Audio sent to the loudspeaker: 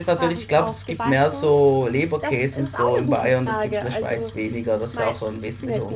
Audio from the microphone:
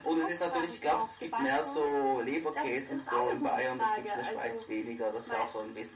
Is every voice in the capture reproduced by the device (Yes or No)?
Yes